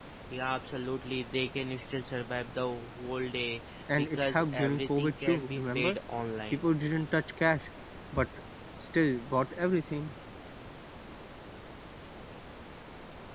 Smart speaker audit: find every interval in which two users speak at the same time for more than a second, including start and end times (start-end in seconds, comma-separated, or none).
3.9-6.0